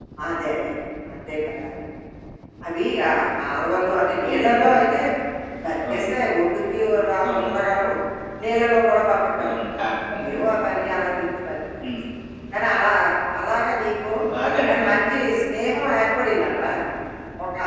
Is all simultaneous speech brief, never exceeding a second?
Yes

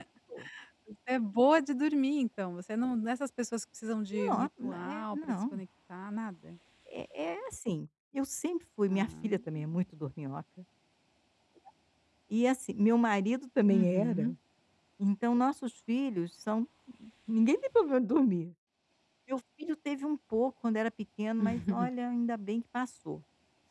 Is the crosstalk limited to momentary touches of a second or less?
No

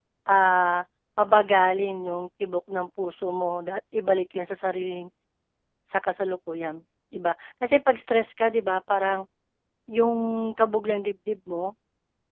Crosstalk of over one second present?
No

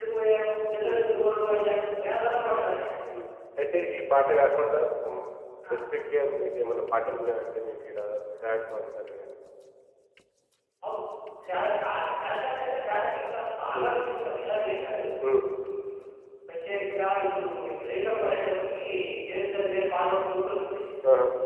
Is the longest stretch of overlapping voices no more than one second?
Yes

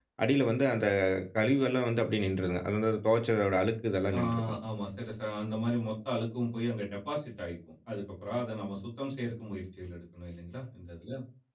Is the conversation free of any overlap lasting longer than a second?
Yes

